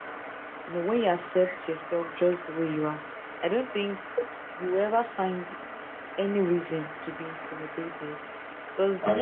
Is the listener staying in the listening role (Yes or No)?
Yes